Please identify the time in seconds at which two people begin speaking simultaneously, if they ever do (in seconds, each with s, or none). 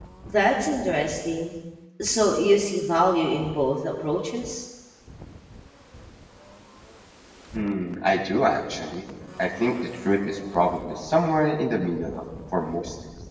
none